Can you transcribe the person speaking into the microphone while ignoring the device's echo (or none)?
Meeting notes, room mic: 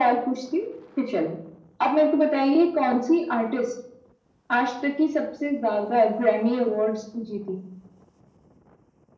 none